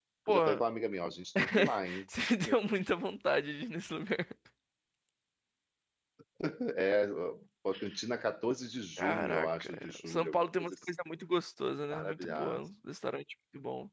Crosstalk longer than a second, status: present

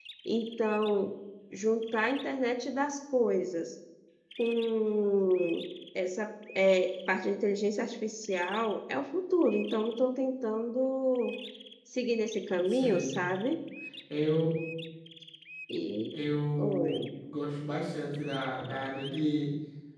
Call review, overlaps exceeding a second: none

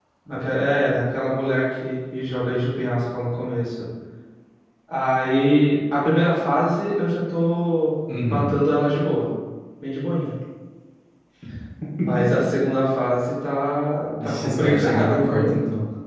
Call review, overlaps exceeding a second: present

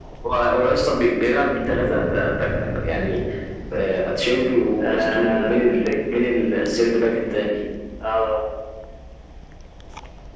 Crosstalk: present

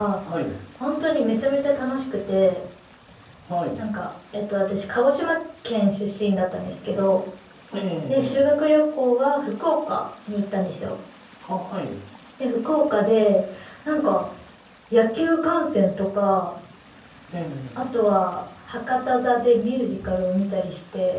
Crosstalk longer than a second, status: none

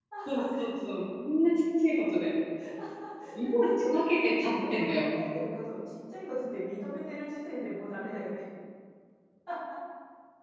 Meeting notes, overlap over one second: present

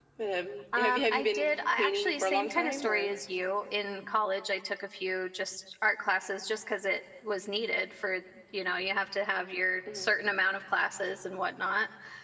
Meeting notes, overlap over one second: present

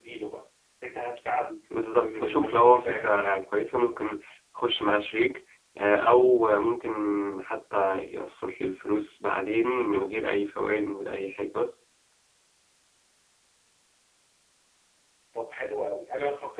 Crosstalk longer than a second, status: present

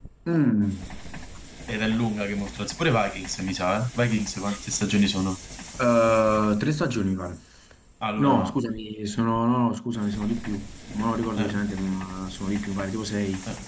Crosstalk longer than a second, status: none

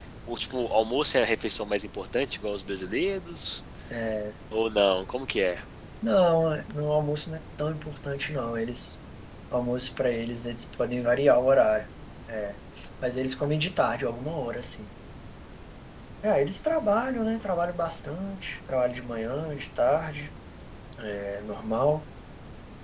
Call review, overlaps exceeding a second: none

